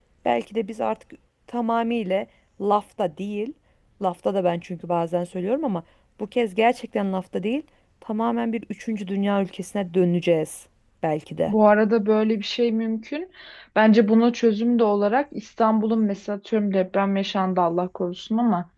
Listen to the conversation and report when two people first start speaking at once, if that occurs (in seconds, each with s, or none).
none